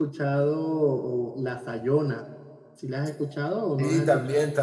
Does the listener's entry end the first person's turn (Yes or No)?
Yes